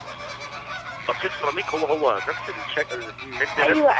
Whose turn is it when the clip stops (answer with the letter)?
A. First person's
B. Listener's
B